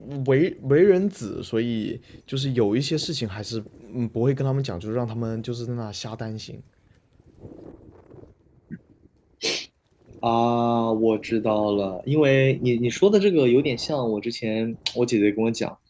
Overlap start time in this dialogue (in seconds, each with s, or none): none